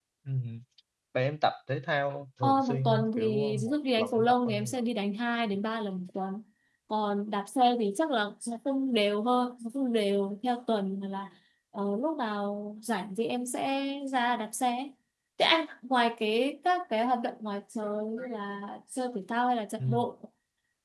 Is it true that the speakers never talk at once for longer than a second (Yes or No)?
No